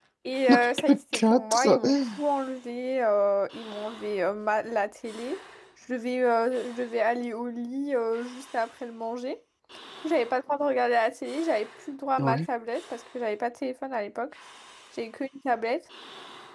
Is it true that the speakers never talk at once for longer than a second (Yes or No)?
No